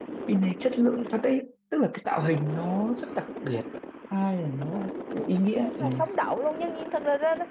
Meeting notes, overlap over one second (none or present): none